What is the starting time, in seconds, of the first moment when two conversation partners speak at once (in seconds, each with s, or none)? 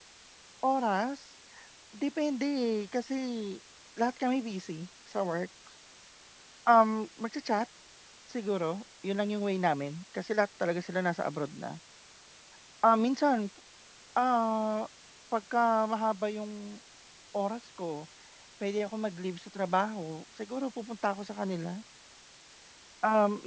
none